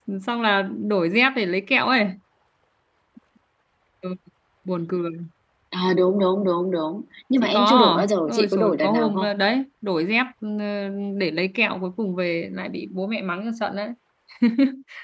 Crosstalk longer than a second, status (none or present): present